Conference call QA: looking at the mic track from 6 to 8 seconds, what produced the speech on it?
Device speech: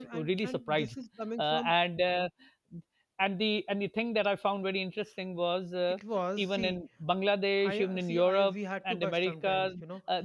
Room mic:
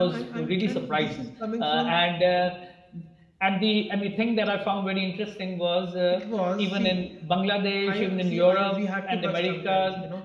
echo only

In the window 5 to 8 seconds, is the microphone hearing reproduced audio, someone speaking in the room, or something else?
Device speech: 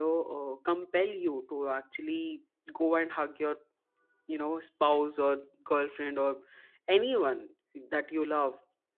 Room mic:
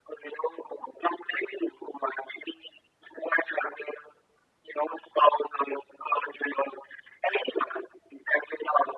echo only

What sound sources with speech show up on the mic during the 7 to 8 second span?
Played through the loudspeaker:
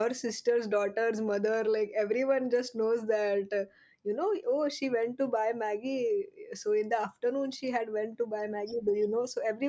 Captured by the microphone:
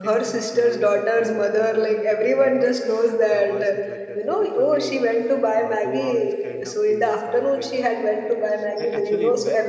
both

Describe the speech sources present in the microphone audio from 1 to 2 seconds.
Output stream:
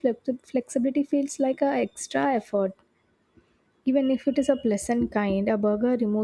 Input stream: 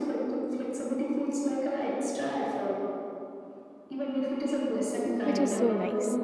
echo only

